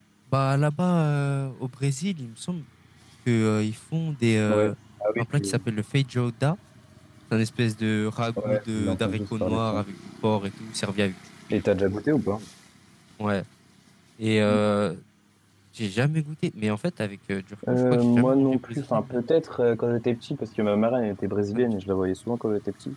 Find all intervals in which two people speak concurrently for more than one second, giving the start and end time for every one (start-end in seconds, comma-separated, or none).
8.4-9.8, 17.9-19.2